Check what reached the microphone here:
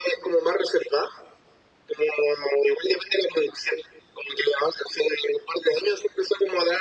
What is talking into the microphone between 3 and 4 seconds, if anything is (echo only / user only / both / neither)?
echo only